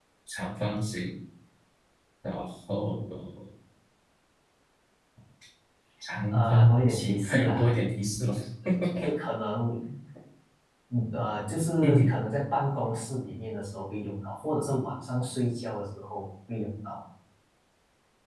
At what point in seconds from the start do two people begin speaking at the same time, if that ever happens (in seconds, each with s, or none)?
6.3 s